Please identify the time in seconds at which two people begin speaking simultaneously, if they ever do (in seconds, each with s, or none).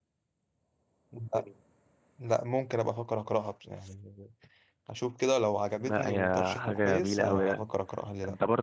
5.8 s